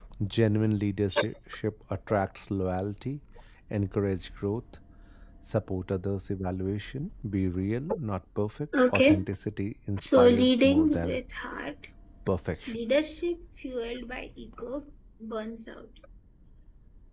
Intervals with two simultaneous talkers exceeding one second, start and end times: 10.0-11.2

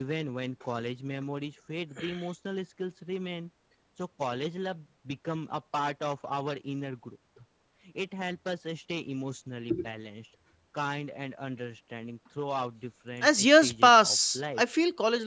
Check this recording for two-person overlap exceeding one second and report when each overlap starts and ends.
13.2-14.6

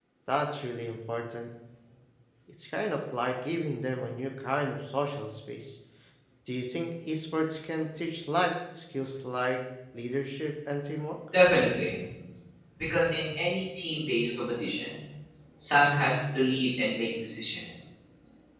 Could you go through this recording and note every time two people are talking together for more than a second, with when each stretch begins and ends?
none

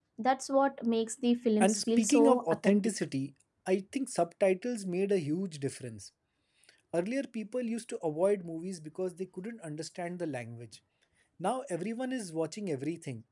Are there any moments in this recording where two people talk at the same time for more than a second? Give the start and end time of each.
1.6-2.9

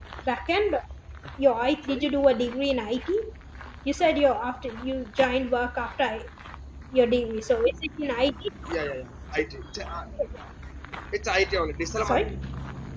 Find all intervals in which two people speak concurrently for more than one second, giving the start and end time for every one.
none

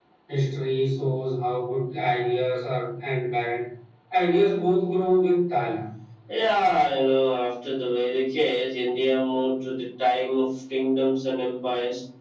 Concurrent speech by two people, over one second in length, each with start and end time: none

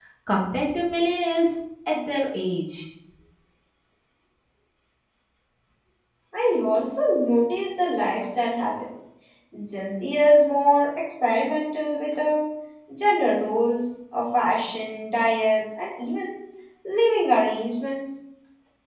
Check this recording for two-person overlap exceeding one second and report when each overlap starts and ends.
none

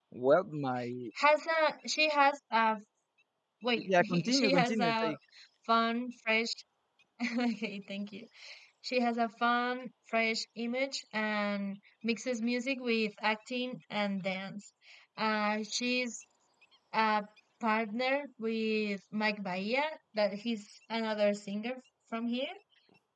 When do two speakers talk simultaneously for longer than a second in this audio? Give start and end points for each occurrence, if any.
3.8-5.1

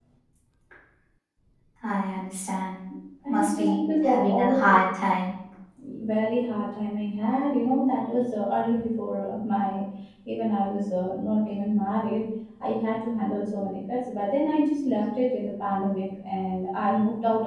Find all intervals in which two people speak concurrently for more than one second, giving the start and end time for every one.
3.3-4.8

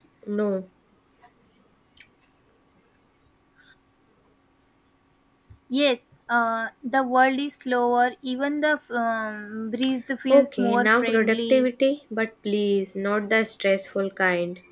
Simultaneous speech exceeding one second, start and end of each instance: 10.3-11.7

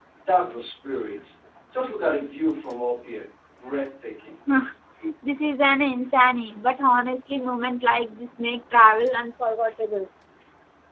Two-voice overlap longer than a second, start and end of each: none

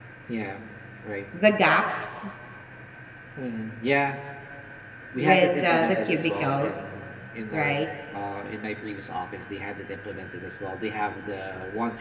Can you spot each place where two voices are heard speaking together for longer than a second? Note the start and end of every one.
5.2-6.9

